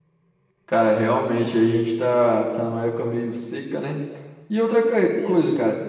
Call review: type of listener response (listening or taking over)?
listening